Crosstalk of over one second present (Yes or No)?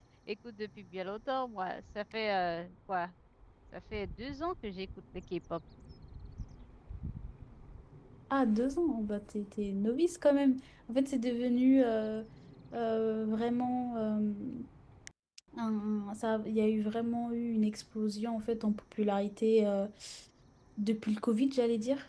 No